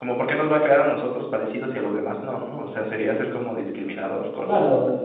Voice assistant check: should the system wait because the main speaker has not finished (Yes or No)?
No